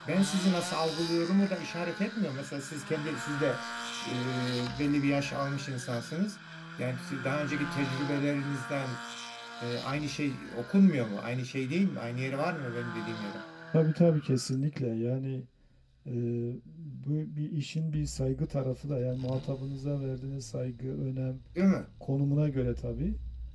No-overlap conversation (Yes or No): Yes